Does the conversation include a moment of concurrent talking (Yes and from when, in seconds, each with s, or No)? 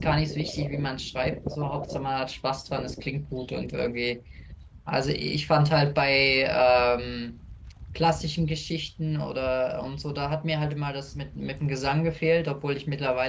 No